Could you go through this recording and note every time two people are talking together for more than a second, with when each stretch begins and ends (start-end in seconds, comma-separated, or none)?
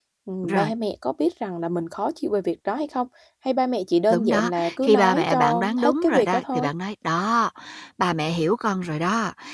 4.1-6.7